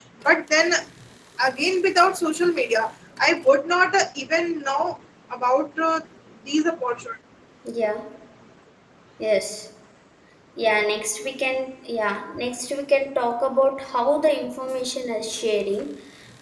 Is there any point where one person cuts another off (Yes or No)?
No